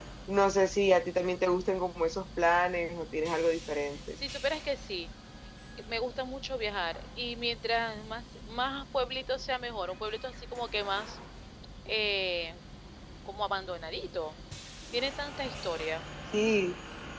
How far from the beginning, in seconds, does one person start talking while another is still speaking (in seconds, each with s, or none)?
none